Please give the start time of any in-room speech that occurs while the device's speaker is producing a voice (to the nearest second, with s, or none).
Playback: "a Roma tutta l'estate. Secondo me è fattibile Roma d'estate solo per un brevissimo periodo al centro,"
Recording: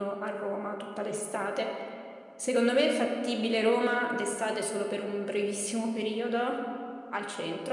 none